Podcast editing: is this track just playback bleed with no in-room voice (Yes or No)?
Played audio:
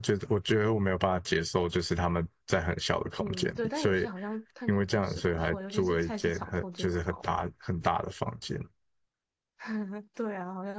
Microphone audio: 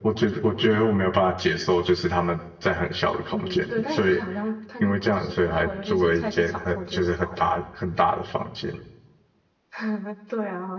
Yes